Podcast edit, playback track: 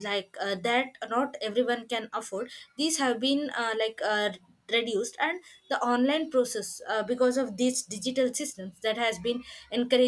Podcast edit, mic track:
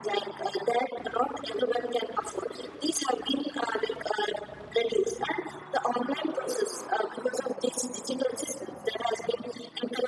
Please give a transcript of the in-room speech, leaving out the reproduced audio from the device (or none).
none